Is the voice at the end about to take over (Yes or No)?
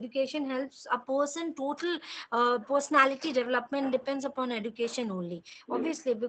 No